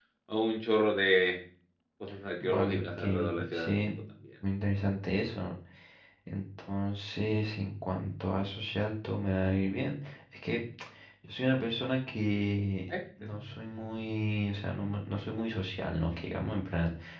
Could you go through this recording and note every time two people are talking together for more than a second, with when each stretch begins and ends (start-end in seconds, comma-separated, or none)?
2.4-3.8